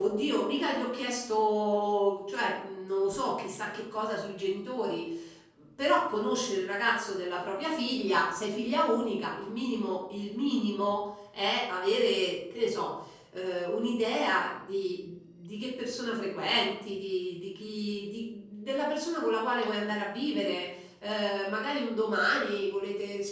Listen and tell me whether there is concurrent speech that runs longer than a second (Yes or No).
No